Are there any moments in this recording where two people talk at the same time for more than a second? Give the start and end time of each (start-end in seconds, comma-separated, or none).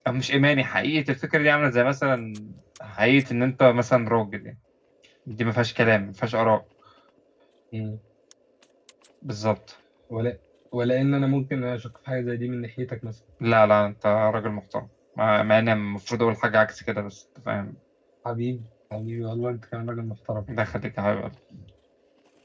none